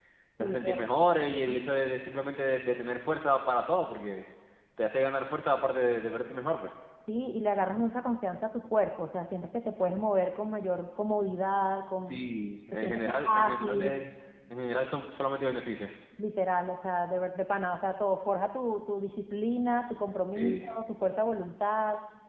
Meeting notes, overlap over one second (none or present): present